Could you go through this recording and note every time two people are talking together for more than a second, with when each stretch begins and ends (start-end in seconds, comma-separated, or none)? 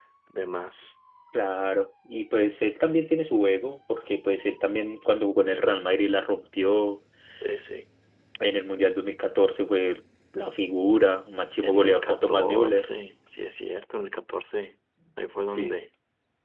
11.6-12.9